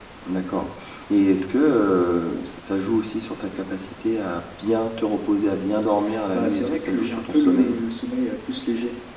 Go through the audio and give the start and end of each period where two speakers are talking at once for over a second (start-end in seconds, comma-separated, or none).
6.3-7.8